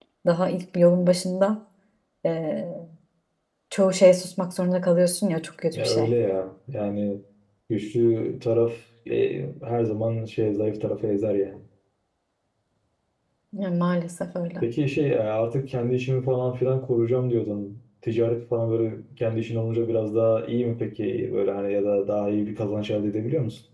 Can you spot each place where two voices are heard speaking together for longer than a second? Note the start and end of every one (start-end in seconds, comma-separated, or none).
none